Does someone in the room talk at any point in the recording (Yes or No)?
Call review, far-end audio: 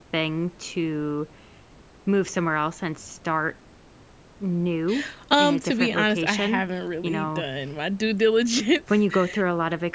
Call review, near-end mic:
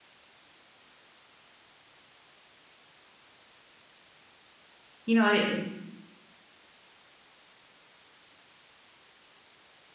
Yes